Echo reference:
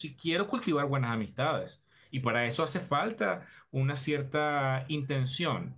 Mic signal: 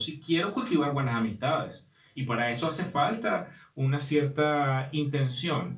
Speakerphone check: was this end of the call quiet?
Yes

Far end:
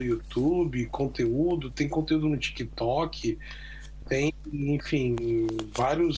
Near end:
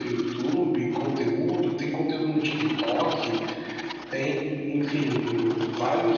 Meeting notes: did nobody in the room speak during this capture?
Yes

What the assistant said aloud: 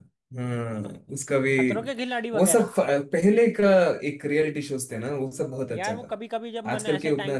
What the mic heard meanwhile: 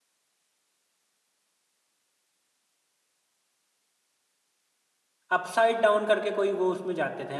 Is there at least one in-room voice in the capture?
Yes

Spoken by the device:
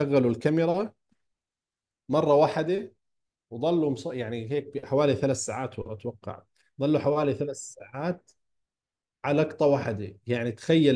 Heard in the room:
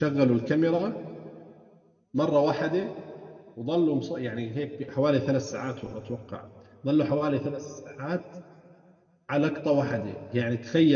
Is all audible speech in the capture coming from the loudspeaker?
Yes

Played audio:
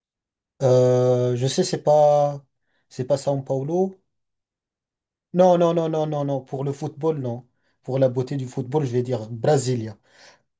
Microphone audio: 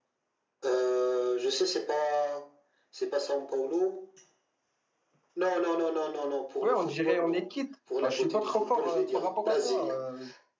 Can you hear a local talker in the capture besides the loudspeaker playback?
Yes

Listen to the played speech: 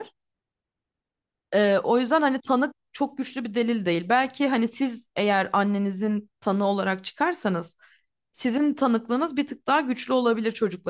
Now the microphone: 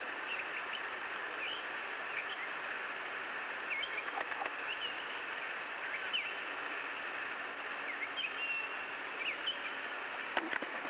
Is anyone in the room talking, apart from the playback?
No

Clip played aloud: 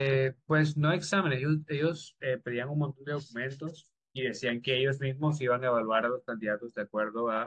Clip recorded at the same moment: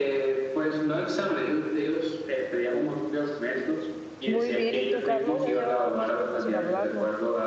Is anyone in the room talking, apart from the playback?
Yes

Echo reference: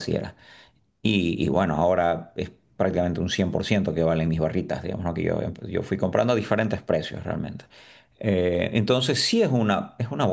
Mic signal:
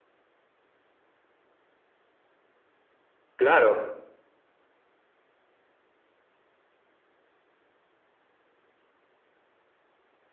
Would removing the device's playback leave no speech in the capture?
No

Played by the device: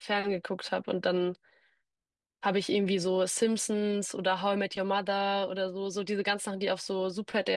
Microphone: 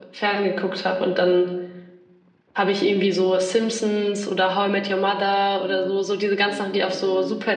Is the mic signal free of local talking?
No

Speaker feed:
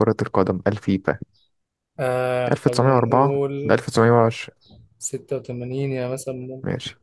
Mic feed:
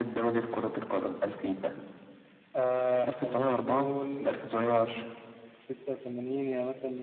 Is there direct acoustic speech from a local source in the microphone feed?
No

